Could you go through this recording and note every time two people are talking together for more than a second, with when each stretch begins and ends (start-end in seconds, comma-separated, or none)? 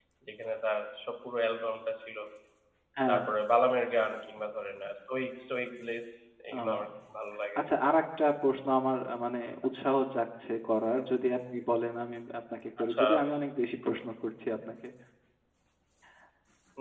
none